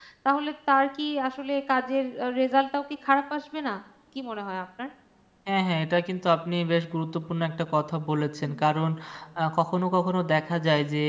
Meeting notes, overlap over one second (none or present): none